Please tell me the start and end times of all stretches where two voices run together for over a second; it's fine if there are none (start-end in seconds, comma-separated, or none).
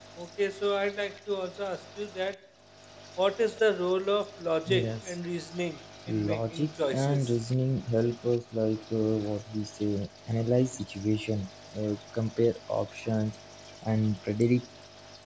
6.1-7.3